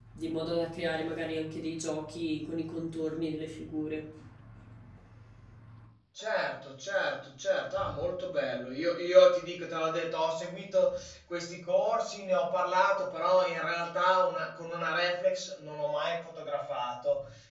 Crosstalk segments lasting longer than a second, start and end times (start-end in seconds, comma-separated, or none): none